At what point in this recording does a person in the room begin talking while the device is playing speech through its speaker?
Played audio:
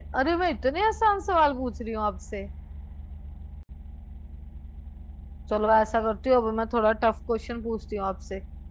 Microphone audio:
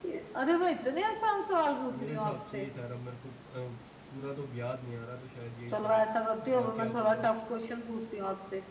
2.0 s

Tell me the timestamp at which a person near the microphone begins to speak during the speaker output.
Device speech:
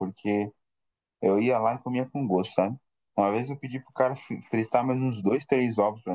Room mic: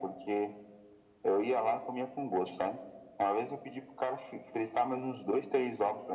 none

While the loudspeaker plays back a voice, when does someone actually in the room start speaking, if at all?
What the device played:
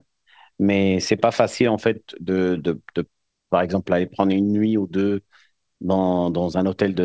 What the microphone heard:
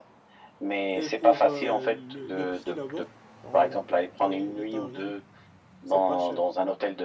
0.9 s

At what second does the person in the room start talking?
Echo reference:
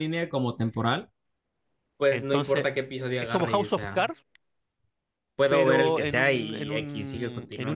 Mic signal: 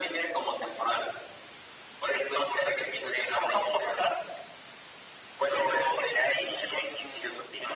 none

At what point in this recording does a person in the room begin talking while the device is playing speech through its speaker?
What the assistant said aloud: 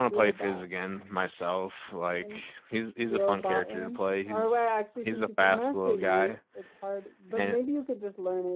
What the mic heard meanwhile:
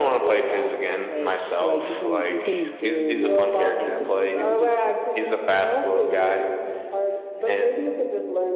1.0 s

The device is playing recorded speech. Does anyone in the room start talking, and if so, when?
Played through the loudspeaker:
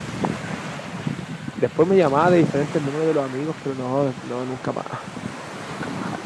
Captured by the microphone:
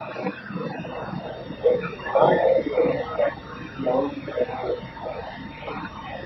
none

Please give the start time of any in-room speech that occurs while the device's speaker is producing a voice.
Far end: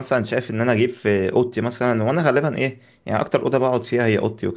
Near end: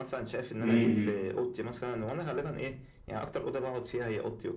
0.6 s

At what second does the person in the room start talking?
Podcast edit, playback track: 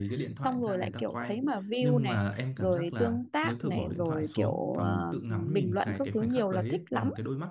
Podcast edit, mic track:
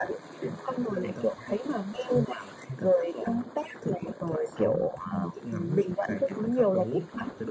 none

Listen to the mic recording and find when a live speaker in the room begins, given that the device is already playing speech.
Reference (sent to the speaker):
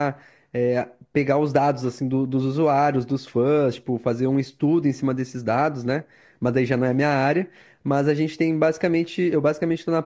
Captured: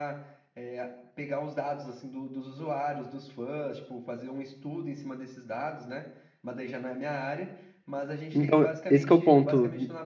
8.3 s

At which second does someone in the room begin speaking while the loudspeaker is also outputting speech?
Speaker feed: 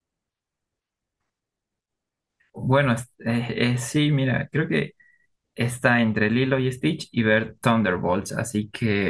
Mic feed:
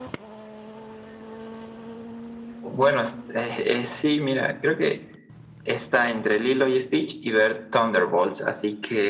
none

